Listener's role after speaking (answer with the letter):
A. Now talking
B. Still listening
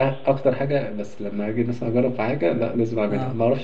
B